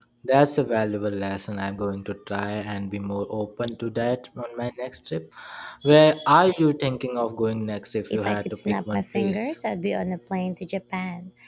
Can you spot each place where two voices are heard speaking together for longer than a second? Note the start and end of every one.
8.1-9.5

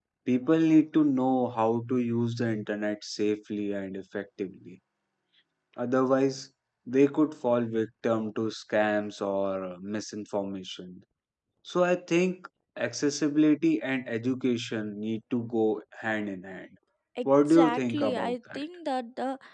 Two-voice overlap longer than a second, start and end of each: 17.2-18.6

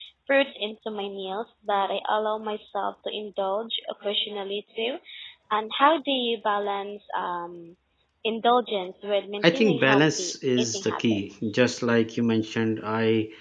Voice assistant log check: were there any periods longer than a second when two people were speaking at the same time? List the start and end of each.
9.4-11.6

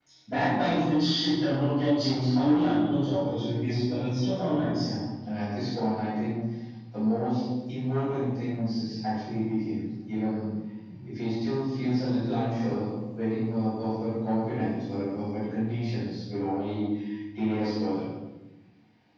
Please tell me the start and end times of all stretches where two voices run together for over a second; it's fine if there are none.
none

